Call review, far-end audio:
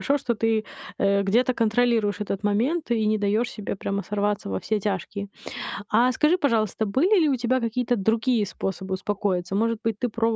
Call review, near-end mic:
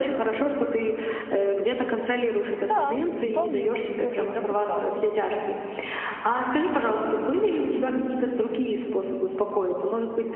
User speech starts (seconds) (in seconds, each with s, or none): 2.6 s